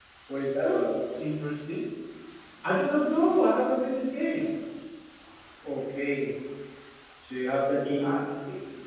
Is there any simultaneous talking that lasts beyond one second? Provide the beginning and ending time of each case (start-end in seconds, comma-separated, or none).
none